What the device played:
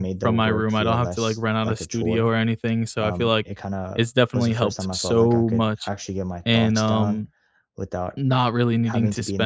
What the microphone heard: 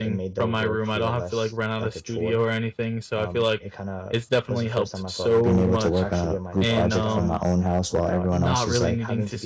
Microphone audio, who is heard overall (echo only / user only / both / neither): both